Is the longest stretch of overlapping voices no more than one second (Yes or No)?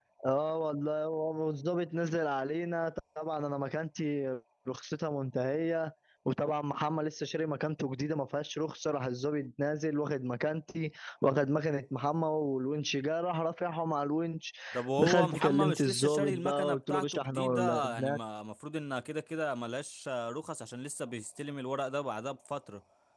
No